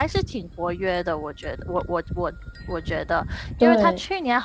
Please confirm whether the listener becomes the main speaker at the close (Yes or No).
No